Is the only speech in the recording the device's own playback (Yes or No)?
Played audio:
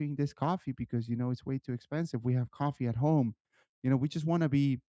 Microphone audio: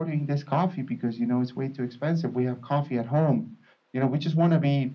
Yes